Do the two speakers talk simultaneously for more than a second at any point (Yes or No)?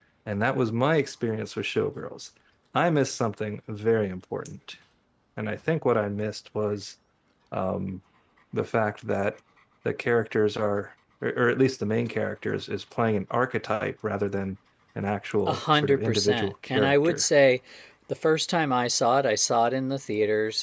Yes